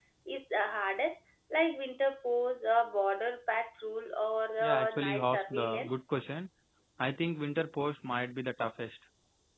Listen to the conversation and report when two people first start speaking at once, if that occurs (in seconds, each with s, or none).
4.6 s